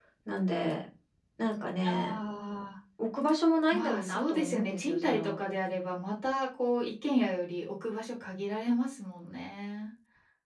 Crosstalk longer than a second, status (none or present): present